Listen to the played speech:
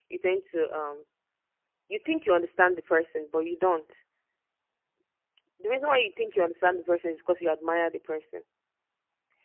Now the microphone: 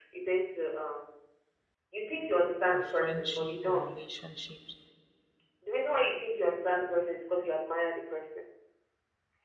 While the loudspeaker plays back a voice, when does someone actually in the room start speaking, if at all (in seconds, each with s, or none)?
2.7 s